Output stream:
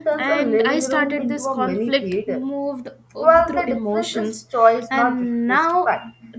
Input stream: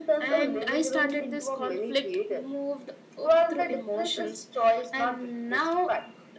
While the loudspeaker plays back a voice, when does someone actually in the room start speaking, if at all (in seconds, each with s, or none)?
none